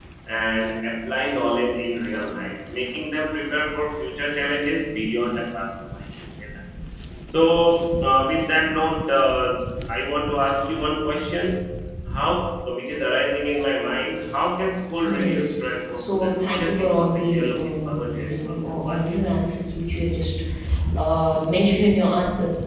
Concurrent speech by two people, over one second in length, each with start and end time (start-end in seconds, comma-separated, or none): 15.9-19.2